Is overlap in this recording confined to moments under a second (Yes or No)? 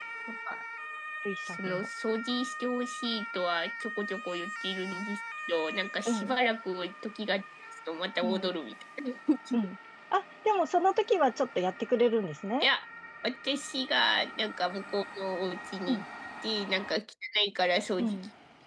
Yes